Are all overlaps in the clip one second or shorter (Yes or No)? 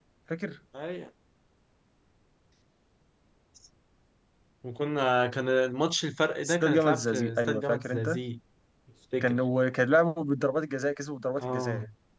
No